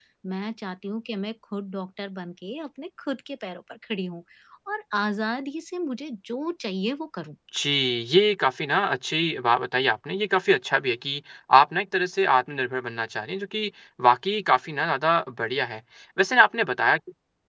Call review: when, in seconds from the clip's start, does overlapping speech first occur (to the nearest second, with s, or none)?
none